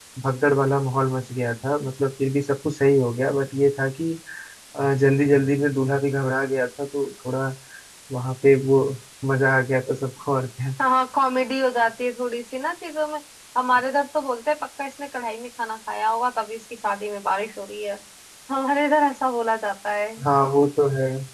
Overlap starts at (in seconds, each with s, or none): none